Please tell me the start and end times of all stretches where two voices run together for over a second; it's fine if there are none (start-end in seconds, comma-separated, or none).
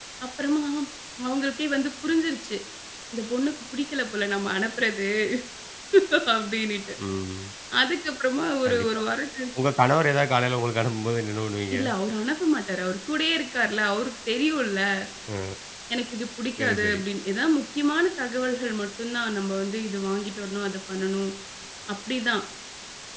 none